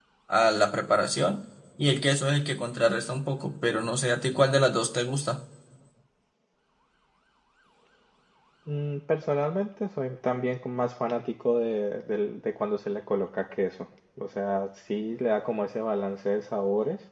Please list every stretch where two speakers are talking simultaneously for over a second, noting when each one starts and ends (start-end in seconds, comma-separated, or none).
none